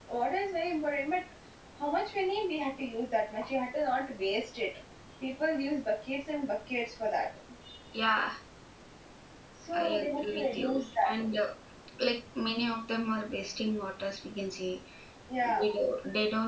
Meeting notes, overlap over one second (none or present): present